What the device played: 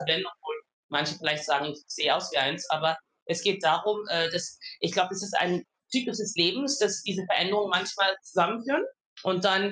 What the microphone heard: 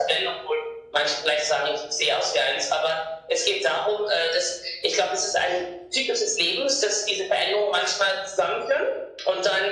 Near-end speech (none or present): none